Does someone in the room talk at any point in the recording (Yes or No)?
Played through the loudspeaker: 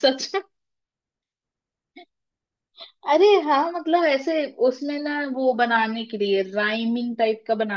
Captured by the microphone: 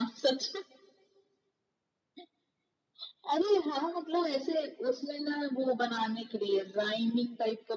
No